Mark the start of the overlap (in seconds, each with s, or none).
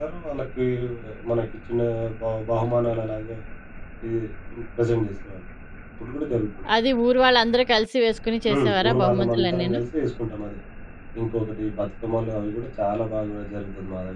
8.5 s